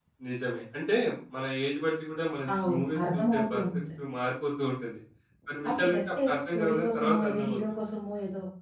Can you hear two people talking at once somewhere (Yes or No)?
Yes